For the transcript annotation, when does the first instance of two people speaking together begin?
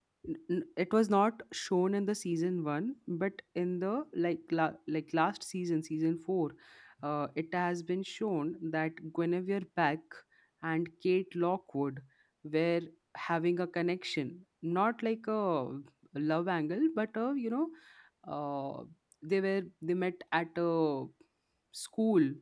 none

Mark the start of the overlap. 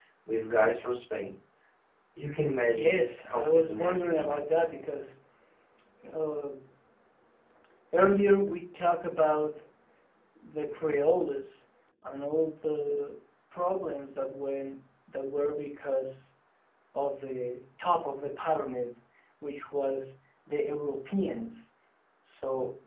2.7 s

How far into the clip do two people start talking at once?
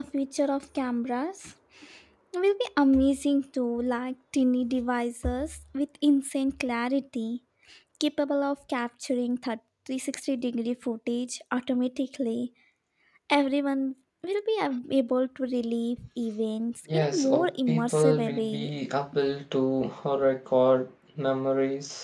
16.9 s

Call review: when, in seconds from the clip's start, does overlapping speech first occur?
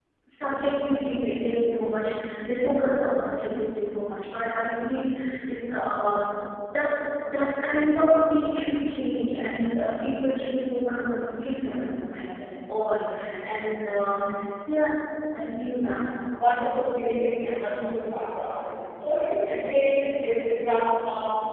none

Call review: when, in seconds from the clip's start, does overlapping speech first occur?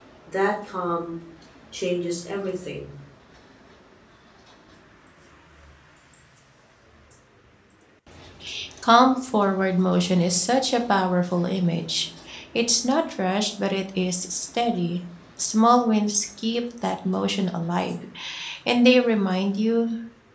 none

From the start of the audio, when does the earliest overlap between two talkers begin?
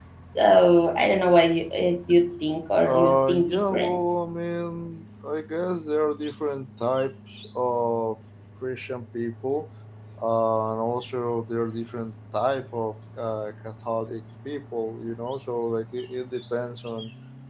2.8 s

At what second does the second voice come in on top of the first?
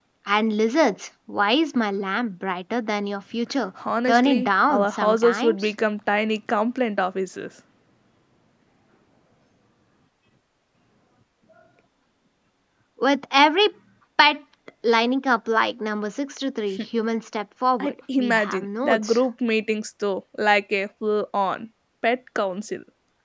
4.1 s

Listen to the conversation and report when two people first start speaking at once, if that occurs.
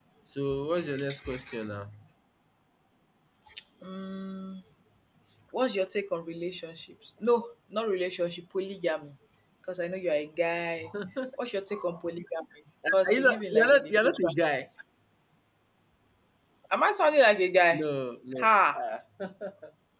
12.9 s

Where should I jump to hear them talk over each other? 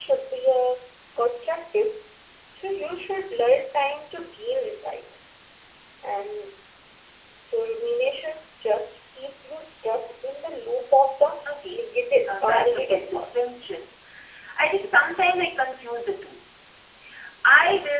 12.2 s

